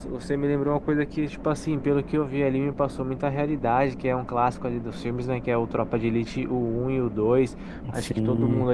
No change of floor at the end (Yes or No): Yes